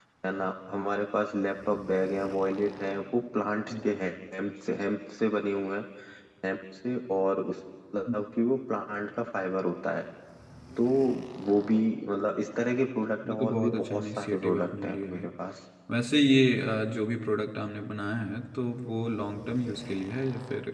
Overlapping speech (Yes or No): Yes